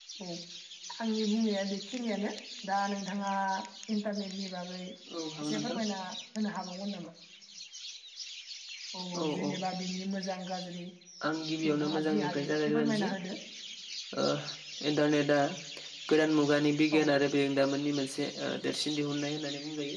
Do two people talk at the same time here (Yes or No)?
Yes